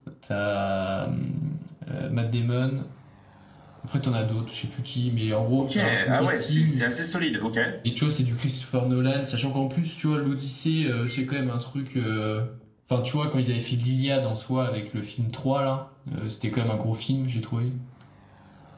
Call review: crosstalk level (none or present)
present